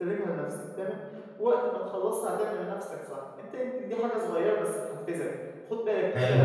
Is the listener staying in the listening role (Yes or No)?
Yes